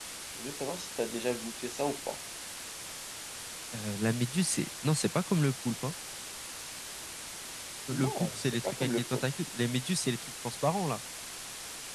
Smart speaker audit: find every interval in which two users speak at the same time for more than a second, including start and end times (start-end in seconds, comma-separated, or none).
7.9-9.2